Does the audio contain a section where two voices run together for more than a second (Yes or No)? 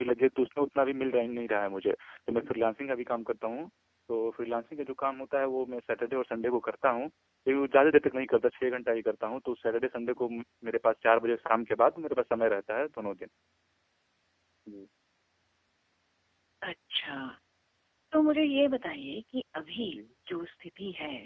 No